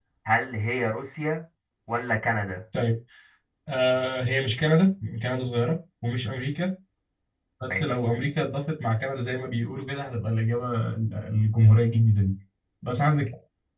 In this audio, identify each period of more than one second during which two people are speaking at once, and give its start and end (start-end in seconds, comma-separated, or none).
none